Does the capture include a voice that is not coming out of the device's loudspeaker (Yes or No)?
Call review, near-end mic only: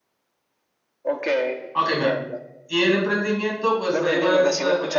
Yes